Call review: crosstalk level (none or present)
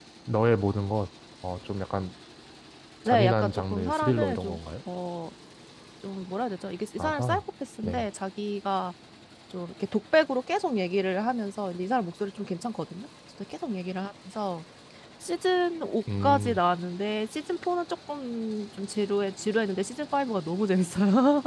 present